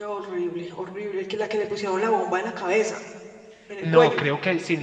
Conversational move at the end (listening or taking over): taking over